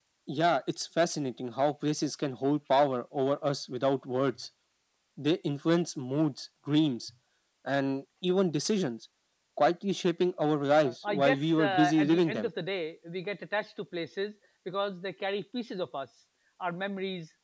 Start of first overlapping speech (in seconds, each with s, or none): 10.8 s